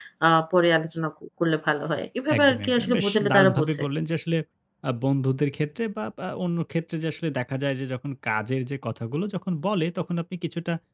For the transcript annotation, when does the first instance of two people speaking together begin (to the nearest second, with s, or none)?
2 s